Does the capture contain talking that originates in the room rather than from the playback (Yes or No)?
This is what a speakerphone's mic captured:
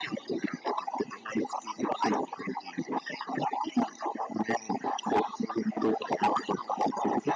No